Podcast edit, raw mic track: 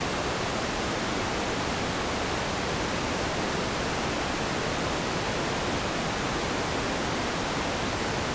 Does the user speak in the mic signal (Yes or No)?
No